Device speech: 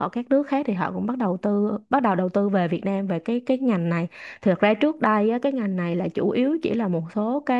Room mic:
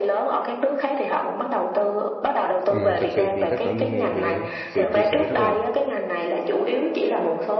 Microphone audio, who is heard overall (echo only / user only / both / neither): both